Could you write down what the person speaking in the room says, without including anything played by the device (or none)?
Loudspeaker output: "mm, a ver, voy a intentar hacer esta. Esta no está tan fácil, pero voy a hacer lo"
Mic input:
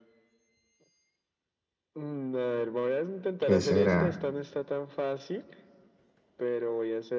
¿qué será?